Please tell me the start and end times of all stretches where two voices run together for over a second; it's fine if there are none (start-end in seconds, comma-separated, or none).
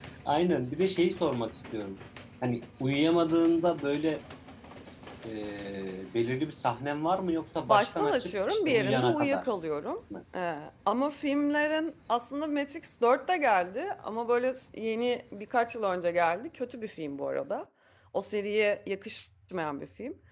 7.7-9.4